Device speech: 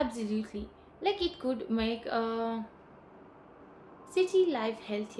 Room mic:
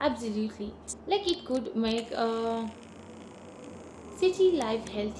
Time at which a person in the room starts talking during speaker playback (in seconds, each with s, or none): none